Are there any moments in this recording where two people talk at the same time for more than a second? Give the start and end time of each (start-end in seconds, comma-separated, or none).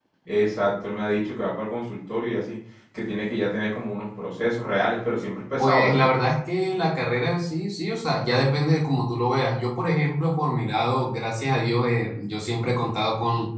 none